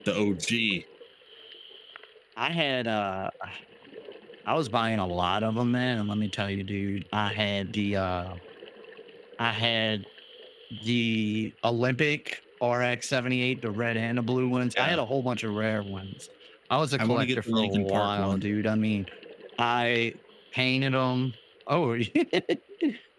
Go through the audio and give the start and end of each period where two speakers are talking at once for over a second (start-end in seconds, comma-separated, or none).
17.0-18.4